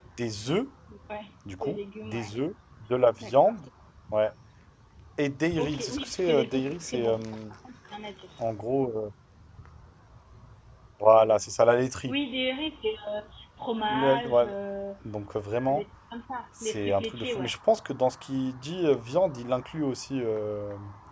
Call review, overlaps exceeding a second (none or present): present